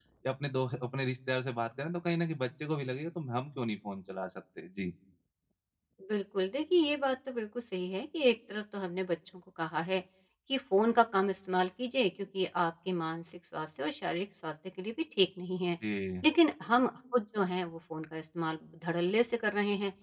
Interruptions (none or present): none